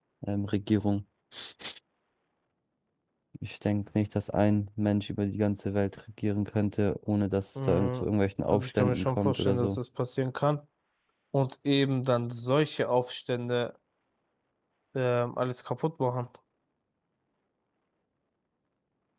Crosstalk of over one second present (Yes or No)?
Yes